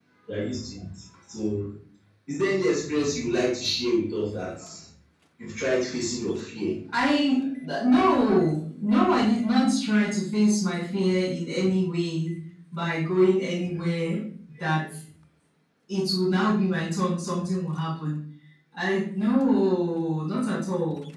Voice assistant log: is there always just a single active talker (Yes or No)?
Yes